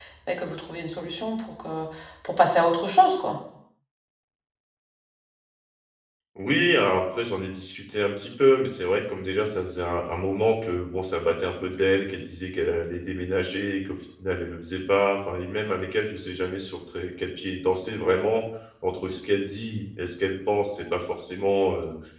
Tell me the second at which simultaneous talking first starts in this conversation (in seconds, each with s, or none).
none